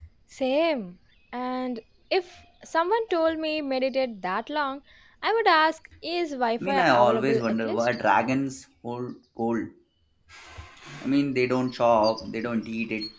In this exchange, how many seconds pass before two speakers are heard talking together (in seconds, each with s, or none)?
6.6 s